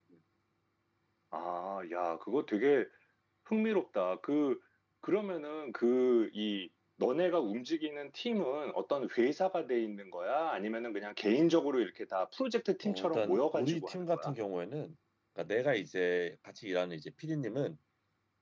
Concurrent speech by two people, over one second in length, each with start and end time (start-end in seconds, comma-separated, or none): 12.8-14.3